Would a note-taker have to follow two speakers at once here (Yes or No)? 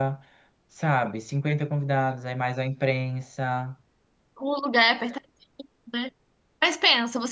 No